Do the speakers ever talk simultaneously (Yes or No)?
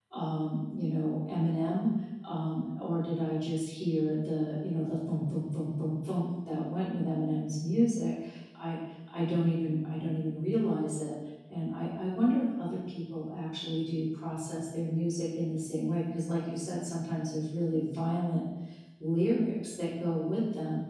No